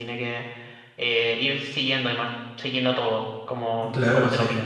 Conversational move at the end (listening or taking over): taking over